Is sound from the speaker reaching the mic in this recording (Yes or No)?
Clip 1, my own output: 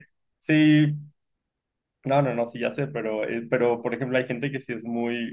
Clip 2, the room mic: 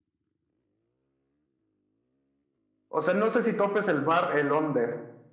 No